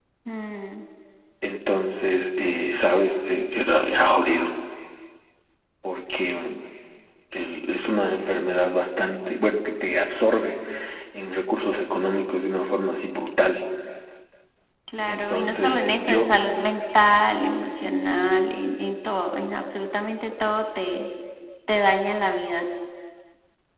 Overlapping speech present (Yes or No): Yes